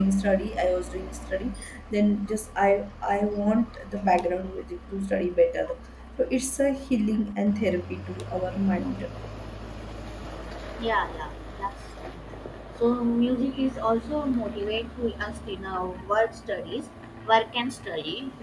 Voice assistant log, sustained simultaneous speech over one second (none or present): none